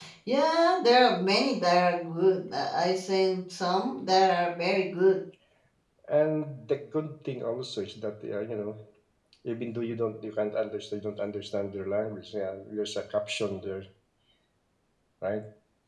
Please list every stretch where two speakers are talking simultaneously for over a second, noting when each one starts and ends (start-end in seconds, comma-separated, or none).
none